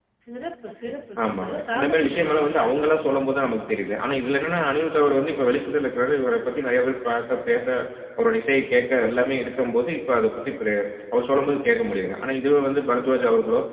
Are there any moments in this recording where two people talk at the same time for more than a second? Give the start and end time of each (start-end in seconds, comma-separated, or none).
0.9-2.7